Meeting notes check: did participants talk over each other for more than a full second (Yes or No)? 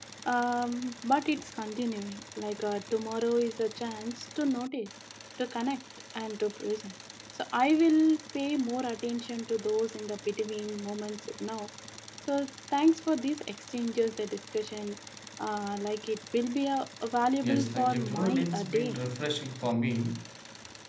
Yes